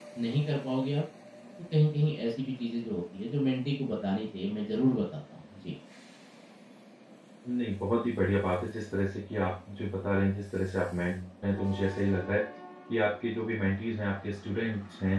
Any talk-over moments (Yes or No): No